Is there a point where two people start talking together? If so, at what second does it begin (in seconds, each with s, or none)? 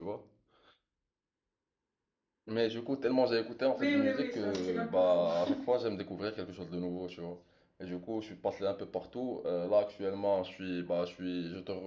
3.7 s